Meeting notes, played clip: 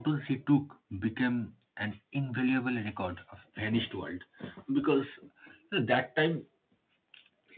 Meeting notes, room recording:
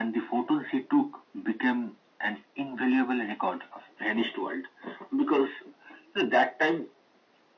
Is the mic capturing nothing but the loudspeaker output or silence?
Yes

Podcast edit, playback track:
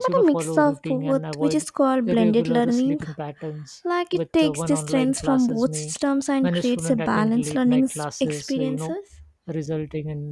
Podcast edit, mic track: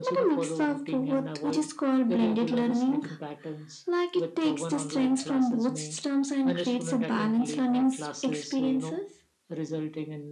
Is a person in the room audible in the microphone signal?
No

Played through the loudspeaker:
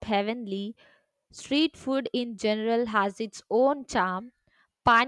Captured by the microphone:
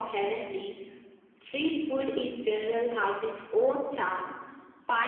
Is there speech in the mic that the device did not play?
No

